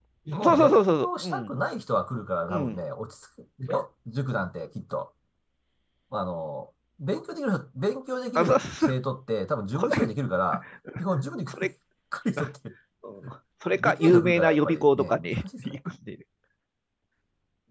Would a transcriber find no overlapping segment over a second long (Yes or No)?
No